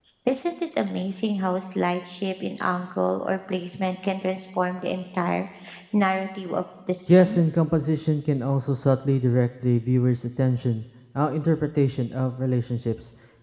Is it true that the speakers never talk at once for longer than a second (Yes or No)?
Yes